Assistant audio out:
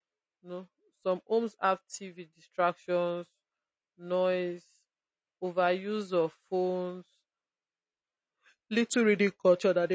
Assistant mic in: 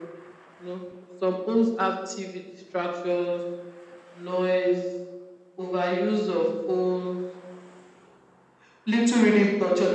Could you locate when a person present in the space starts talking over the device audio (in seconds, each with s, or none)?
none